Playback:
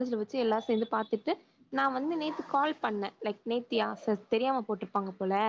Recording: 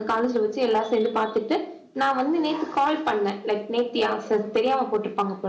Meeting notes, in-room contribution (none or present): none